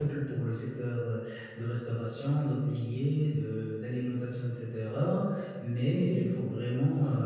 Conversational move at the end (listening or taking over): listening